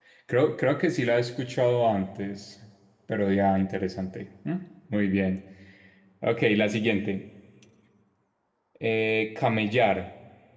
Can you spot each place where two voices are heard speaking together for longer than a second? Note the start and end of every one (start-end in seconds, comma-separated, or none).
none